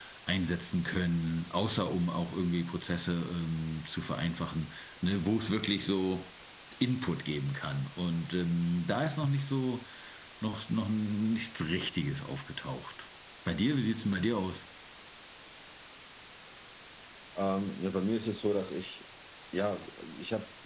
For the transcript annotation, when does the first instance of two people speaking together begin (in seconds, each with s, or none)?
none